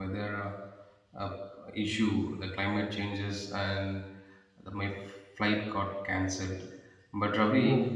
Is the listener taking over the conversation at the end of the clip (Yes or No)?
No